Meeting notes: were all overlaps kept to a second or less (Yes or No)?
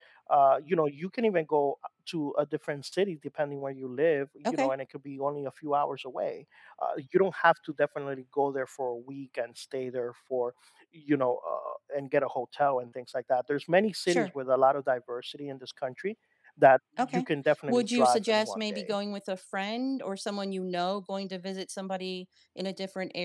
No